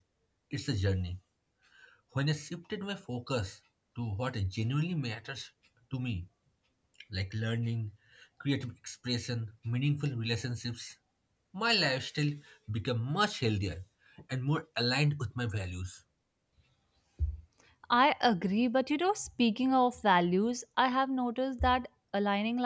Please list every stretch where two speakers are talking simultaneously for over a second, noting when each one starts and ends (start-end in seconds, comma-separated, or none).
none